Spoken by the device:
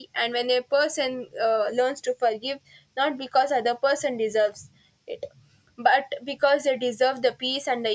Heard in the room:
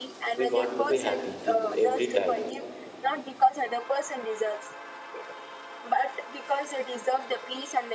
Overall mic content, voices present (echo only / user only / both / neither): both